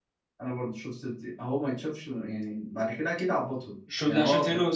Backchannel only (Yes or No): No